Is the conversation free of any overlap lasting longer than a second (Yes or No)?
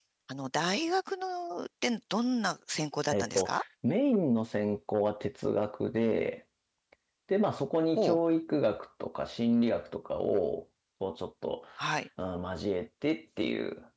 Yes